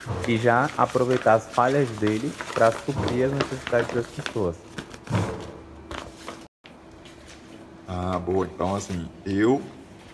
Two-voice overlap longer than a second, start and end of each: none

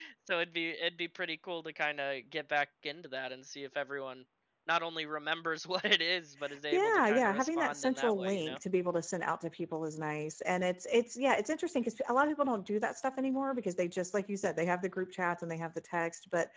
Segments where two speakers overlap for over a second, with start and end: 6.7-8.6

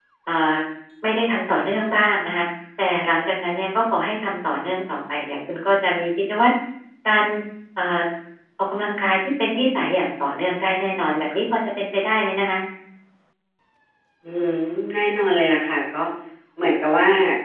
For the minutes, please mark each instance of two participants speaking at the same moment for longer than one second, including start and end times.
none

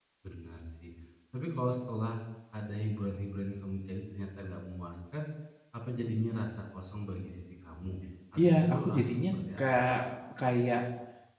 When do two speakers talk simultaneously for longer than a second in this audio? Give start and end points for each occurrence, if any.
8.4-9.6

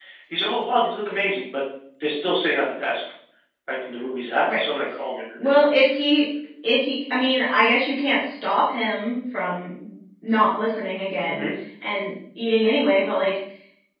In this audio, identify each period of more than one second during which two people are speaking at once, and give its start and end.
none

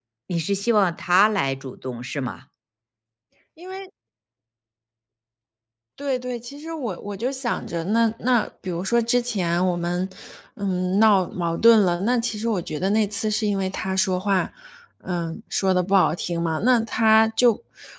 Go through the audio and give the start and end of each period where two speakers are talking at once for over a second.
none

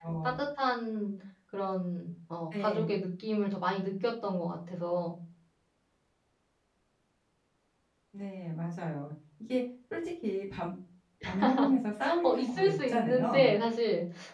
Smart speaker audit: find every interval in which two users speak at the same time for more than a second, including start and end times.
12.2-13.5

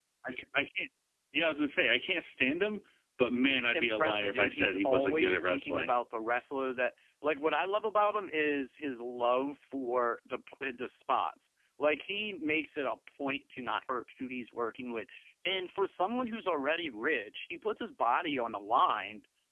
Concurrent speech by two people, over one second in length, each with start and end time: 3.5-5.9

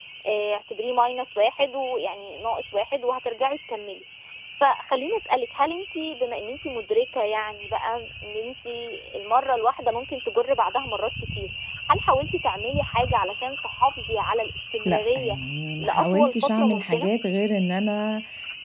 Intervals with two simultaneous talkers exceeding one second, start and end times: 15.8-17.1

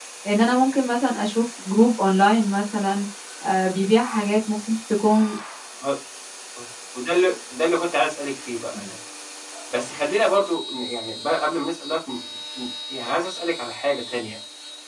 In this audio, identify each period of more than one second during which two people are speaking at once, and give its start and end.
none

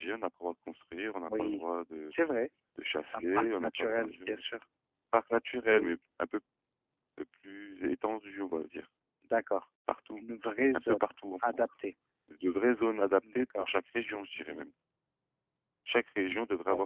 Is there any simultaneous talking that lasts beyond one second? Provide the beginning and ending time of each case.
3.1-4.4

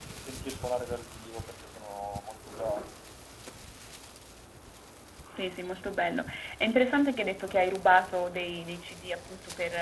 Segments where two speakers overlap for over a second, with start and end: none

